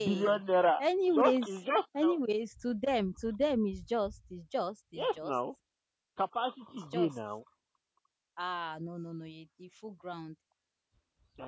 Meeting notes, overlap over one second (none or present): none